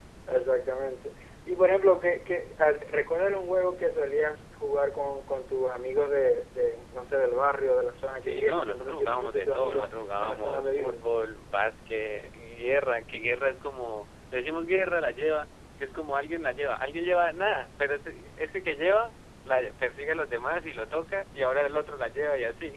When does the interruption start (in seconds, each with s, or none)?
8.2 s